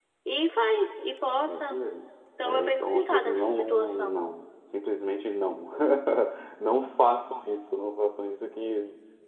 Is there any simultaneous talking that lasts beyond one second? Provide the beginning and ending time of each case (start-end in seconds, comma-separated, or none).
2.4-4.2